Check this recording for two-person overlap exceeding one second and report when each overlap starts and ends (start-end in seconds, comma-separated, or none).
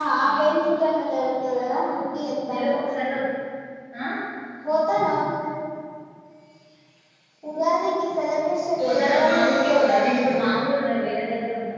8.8-10.2